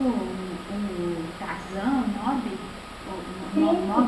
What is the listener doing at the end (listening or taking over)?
taking over